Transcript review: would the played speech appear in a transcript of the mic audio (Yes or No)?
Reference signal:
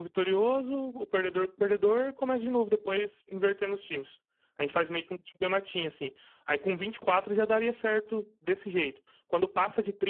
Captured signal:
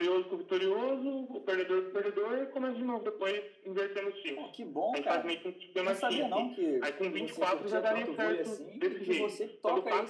Yes